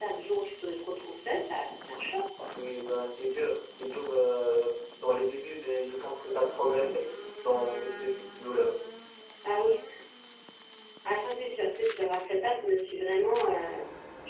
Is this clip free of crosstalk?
Yes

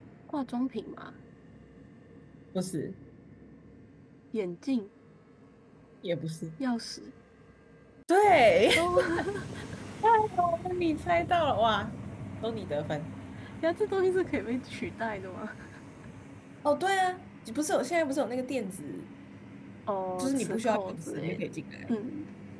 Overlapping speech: Yes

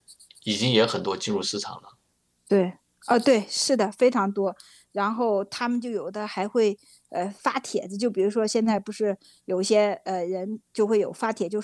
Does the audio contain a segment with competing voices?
No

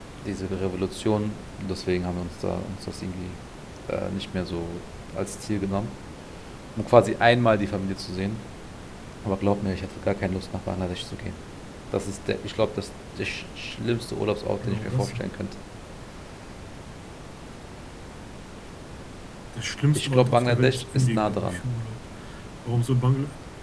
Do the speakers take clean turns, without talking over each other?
No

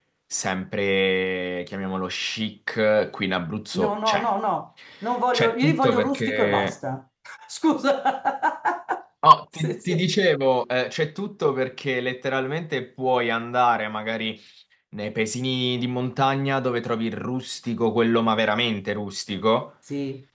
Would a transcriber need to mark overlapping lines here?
Yes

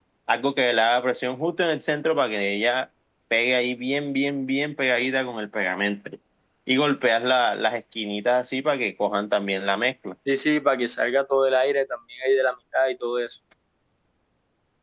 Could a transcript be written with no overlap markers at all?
Yes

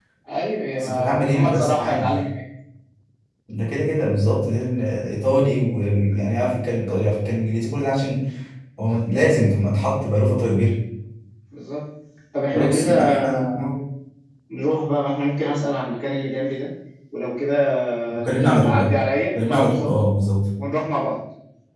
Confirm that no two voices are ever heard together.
No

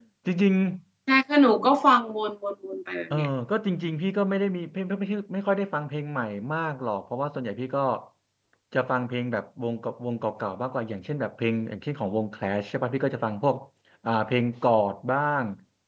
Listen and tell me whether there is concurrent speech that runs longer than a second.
No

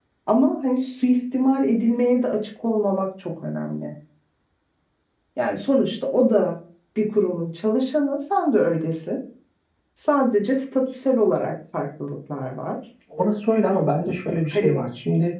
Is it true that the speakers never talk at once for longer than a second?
Yes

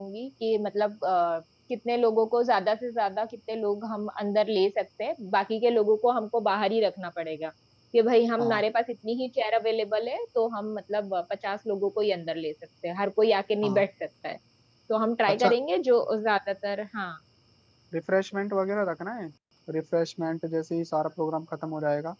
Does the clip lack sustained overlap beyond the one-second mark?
Yes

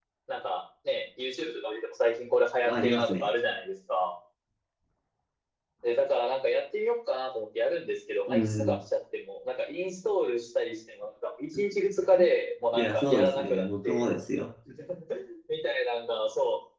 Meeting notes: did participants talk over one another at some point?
Yes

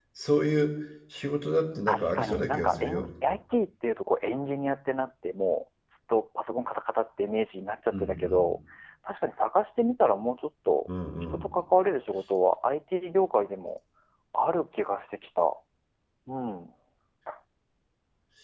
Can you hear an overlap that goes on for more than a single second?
Yes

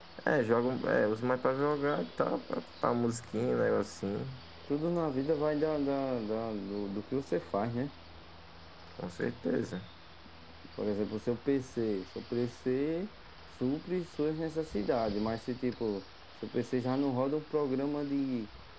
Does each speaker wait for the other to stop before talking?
Yes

